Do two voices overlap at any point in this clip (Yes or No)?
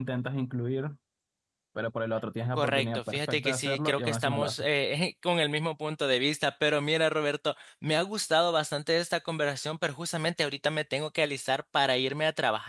Yes